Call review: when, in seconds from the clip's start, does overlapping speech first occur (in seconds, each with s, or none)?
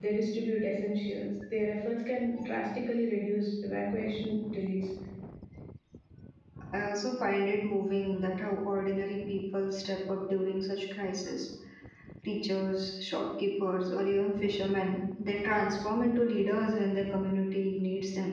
none